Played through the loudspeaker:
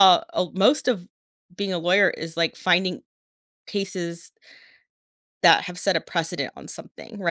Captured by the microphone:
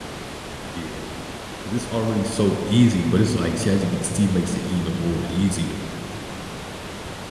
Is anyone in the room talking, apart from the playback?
Yes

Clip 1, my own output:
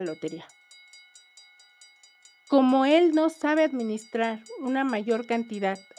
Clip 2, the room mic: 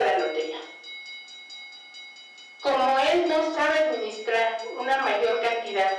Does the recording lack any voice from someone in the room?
Yes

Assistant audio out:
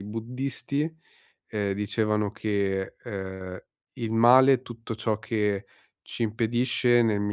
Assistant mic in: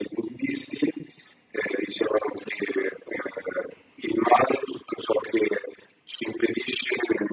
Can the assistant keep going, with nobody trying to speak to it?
Yes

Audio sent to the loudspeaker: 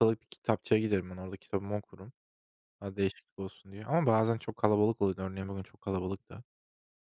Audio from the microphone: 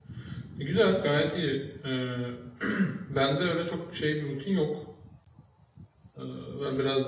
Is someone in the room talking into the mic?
Yes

